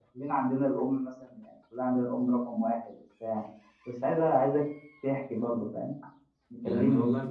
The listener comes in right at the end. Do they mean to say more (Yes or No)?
Yes